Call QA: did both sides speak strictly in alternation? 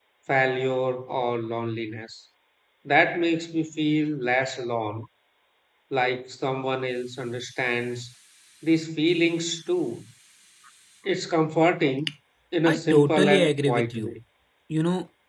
No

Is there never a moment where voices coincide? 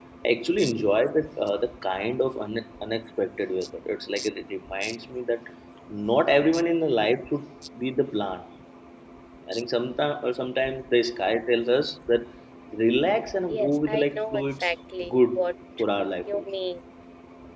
No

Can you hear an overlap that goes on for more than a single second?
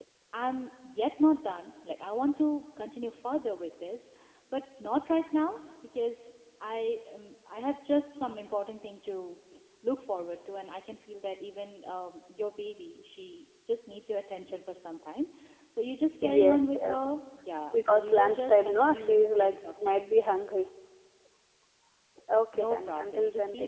Yes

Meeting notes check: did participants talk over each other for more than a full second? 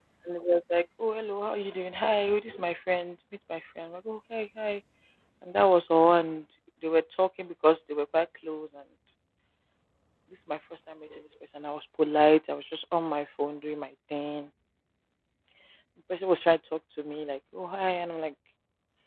No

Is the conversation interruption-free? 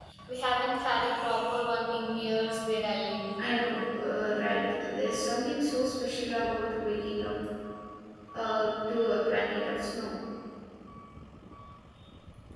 Yes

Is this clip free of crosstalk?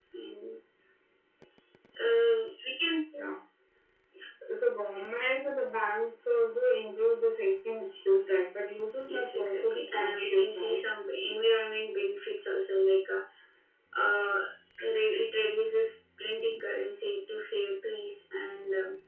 No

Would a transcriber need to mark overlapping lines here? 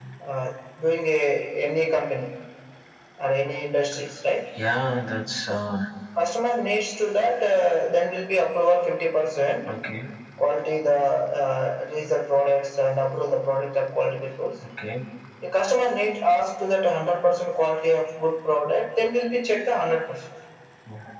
No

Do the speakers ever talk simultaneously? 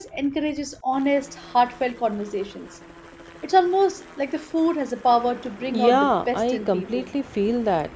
Yes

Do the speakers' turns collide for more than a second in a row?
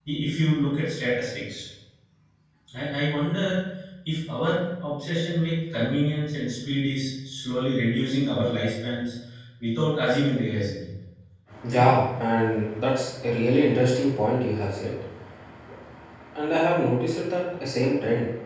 No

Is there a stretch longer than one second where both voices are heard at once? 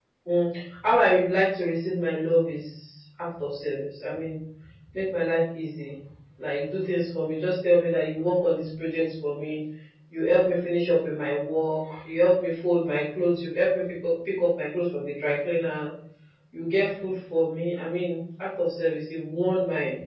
No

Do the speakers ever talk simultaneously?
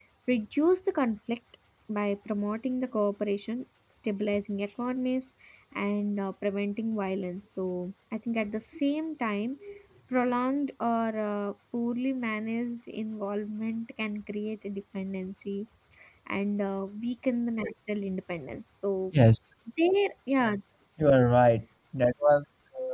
No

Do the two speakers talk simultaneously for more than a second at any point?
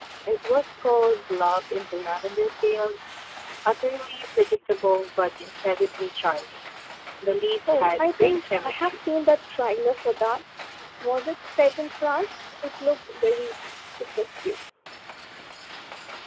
Yes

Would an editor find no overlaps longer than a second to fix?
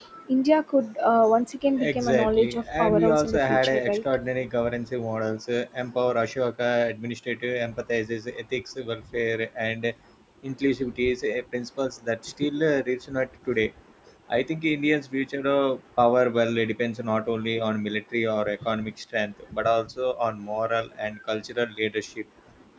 No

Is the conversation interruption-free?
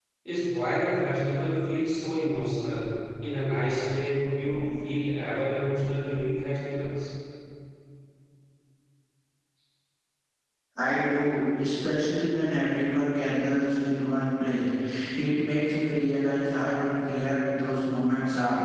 Yes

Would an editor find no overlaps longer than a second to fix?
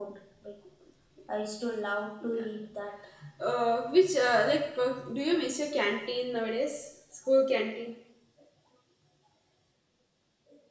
Yes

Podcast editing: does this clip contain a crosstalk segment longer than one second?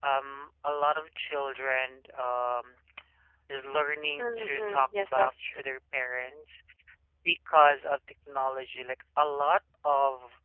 Yes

